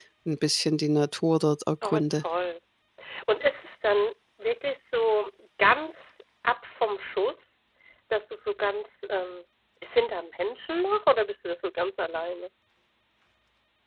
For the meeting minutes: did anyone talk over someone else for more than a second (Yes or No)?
No